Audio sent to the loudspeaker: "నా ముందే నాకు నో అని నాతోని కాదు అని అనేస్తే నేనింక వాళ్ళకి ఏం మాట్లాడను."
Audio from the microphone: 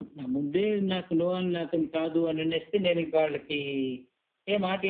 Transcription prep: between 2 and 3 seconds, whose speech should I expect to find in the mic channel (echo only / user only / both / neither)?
echo only